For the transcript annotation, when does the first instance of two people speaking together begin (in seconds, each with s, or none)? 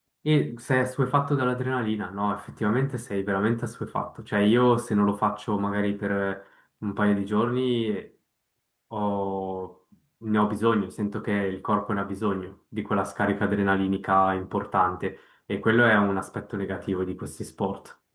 none